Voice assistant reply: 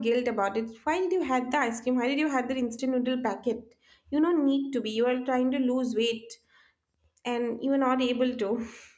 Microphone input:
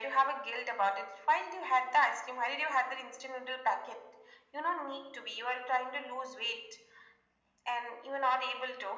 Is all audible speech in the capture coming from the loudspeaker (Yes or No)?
Yes